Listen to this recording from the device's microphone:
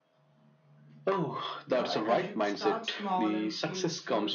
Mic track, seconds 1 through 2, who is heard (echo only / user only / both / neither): both